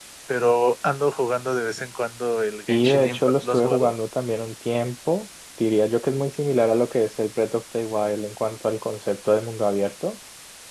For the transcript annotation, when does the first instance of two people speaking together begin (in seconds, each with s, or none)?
2.7 s